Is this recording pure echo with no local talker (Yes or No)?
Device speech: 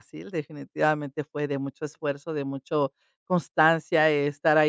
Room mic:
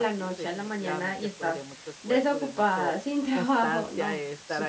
No